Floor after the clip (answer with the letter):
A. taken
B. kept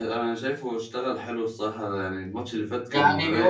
A